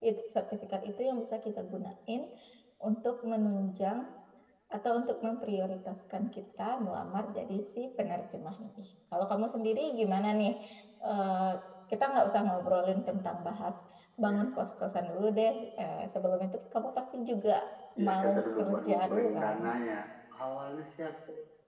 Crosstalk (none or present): present